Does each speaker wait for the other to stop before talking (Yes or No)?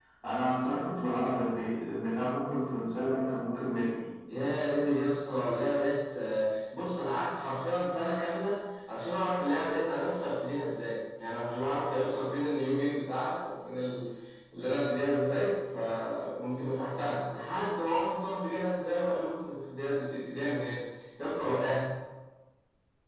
Yes